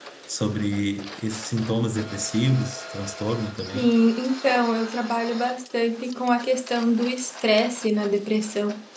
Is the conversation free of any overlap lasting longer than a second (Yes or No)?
Yes